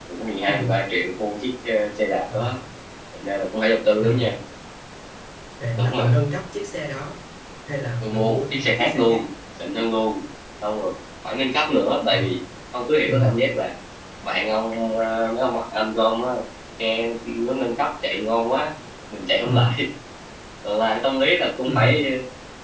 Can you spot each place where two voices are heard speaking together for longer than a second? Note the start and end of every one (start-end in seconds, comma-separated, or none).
8.0-9.2